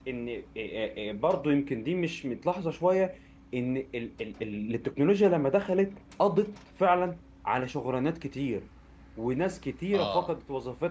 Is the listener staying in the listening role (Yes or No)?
Yes